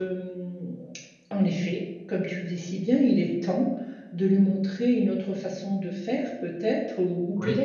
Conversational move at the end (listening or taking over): listening